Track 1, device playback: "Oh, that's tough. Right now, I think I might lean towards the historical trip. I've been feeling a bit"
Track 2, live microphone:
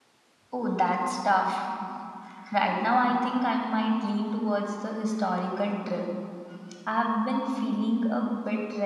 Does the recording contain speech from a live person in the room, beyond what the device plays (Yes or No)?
No